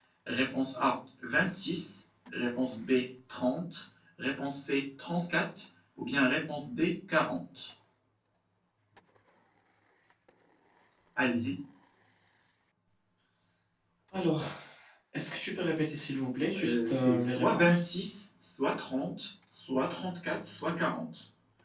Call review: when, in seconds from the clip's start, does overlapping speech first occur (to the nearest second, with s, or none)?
17 s